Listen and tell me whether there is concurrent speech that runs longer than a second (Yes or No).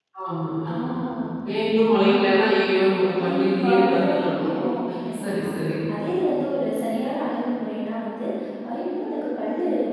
Yes